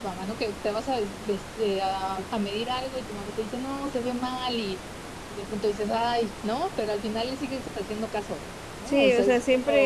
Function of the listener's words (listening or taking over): taking over